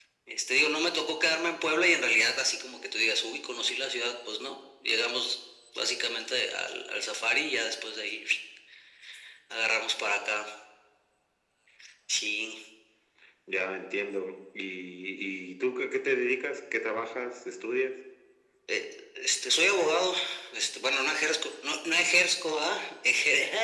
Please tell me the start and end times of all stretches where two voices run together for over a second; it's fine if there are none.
none

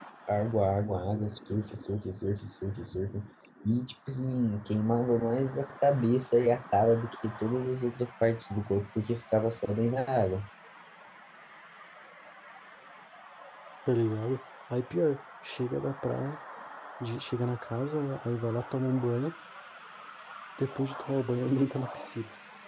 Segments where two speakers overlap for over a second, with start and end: none

